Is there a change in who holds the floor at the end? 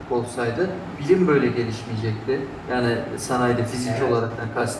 No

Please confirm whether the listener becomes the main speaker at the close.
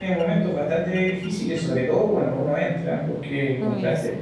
No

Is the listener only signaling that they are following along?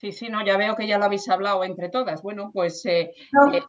Yes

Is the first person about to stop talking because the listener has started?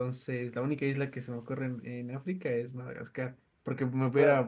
No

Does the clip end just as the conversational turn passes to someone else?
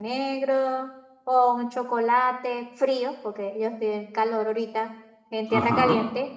No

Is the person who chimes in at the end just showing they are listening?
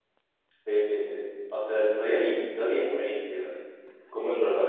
Yes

